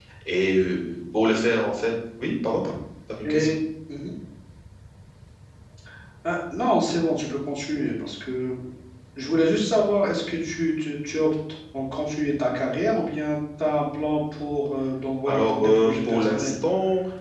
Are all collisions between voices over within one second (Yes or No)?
No